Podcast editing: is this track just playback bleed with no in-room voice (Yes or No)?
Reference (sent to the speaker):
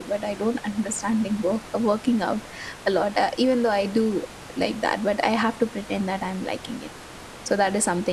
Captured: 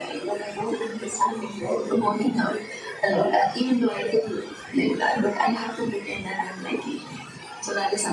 Yes